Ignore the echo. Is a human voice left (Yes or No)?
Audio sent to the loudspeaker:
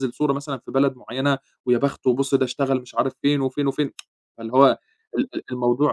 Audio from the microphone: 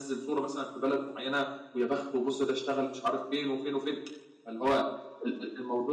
No